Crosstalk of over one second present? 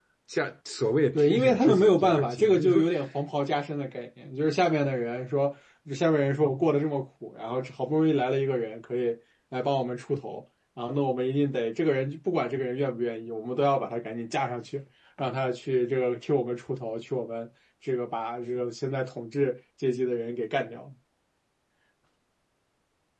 Yes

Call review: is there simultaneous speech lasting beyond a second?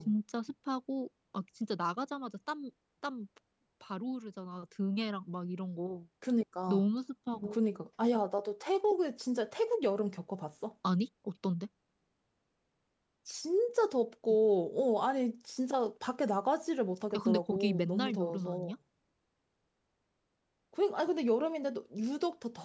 Yes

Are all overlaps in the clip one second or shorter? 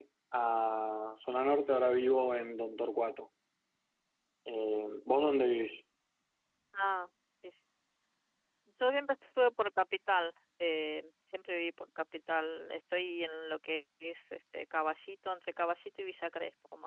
Yes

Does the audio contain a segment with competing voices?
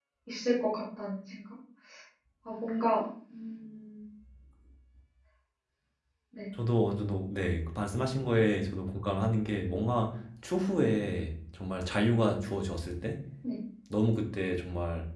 No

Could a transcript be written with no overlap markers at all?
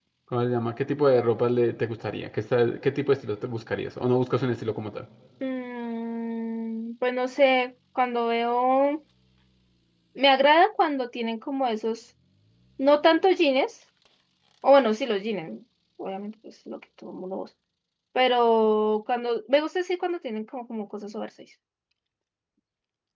Yes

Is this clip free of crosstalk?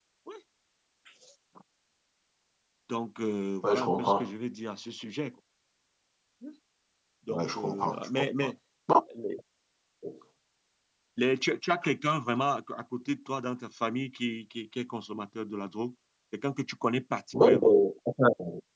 No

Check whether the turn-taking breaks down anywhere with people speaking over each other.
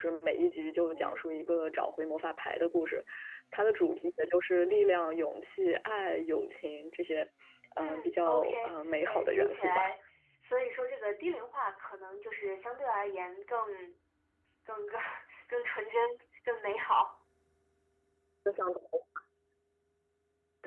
Yes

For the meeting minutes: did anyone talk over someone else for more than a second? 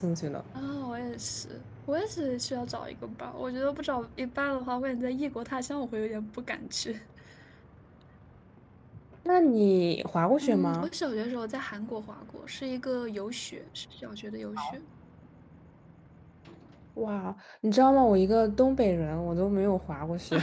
No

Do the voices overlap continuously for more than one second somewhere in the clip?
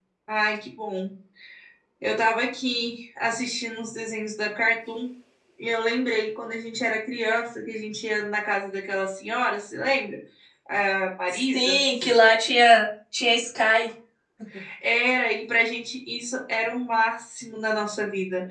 No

